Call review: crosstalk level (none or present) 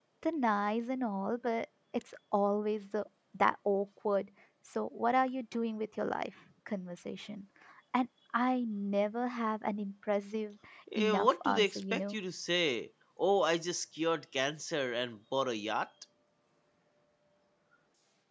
present